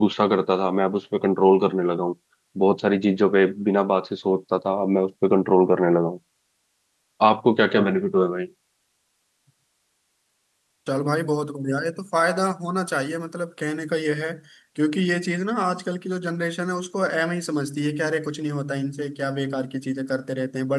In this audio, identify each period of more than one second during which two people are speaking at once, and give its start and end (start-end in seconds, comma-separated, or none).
none